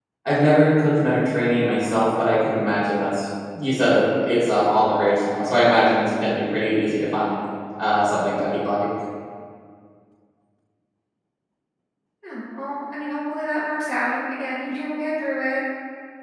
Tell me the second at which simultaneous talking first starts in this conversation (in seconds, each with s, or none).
none